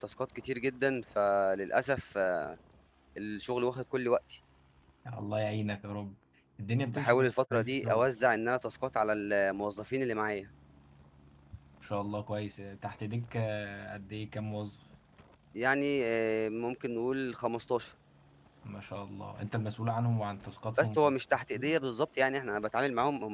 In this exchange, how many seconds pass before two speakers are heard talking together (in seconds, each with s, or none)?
6.9 s